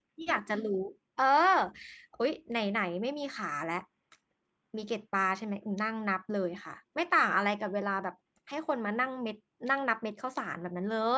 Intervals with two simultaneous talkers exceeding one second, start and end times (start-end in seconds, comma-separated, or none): none